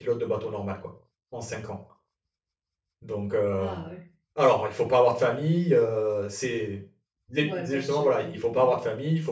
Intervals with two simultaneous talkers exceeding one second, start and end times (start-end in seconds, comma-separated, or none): 7.4-8.7